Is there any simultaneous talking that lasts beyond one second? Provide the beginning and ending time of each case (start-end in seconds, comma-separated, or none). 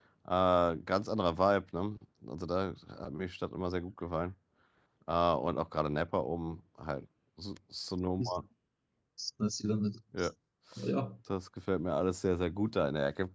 none